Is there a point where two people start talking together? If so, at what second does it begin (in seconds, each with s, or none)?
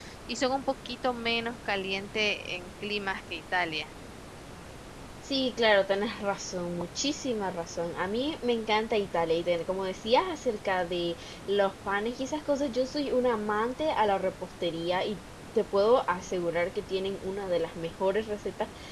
none